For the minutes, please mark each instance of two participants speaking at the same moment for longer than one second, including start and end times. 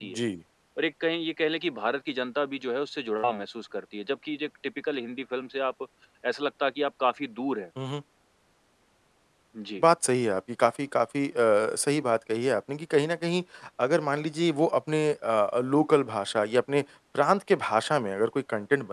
none

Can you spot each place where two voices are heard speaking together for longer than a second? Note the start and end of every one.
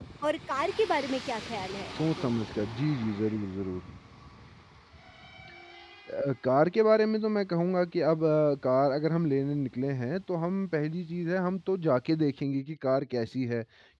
none

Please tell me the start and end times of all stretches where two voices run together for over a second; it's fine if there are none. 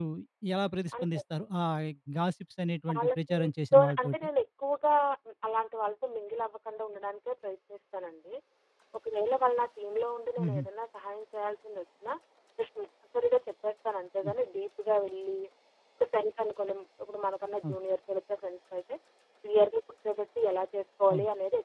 2.9-4.2

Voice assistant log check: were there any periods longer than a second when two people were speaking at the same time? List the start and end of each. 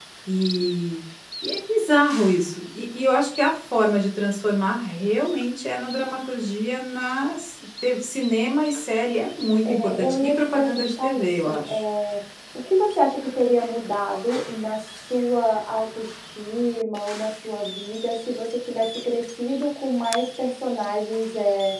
9.7-11.8

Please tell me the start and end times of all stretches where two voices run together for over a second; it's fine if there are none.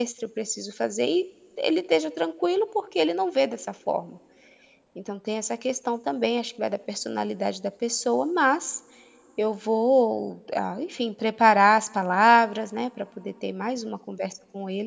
none

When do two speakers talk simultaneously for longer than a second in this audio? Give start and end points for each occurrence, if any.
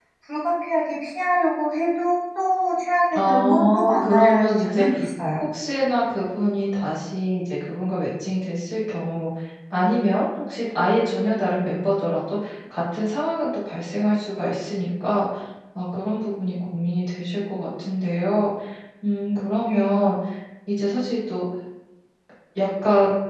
3.1-4.9

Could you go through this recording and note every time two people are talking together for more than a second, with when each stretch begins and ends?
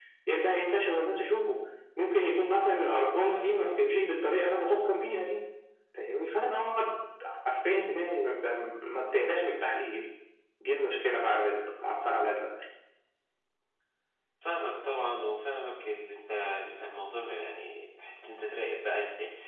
none

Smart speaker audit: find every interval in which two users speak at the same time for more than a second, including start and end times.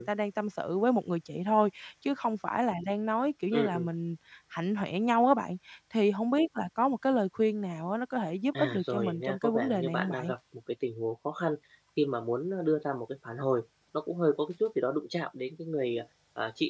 8.6-10.2

